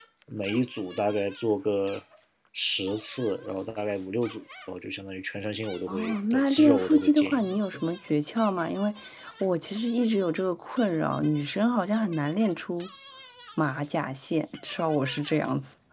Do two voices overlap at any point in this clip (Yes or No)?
Yes